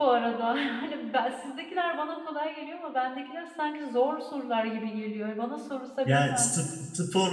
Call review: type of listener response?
taking over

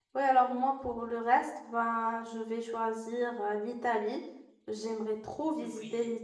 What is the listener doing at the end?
listening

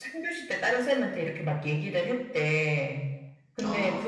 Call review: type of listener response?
listening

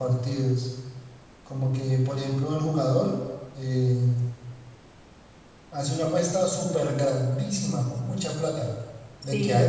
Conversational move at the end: listening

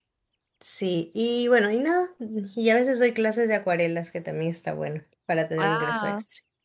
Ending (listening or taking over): taking over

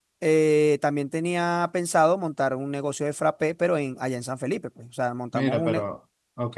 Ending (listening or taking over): taking over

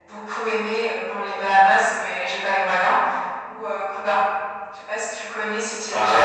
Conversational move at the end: taking over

